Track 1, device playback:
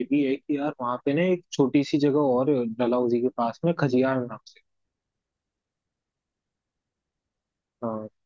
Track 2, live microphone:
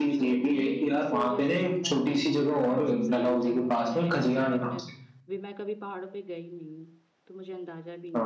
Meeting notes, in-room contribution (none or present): present